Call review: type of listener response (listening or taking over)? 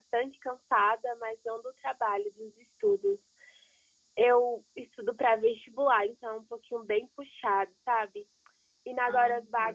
listening